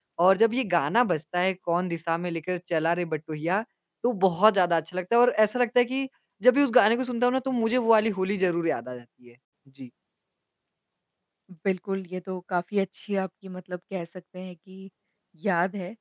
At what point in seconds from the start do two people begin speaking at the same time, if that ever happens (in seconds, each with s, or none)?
none